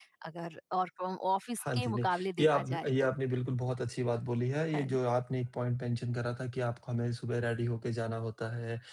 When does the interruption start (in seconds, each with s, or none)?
1.7 s